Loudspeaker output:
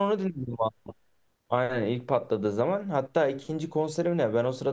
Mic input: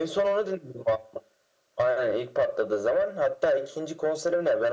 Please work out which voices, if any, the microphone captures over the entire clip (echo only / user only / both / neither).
echo only